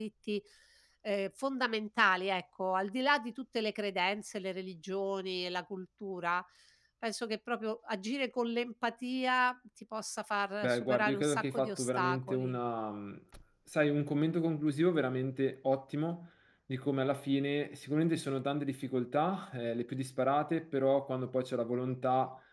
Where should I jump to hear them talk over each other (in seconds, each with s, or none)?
10.6 s